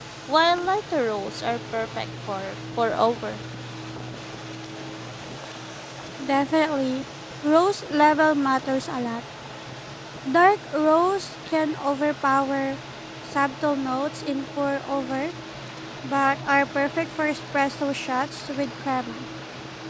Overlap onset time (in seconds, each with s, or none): none